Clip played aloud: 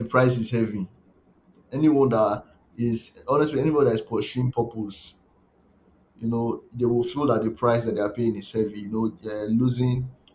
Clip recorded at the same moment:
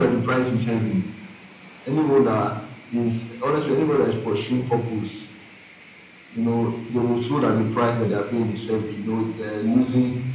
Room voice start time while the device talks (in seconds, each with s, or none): none